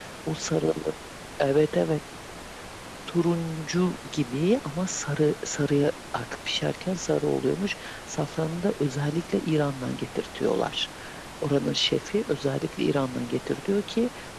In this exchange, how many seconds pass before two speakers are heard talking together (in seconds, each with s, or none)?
none